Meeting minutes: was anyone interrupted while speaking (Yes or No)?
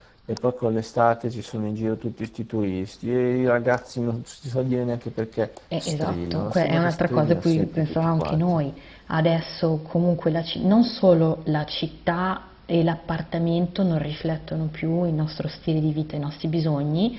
Yes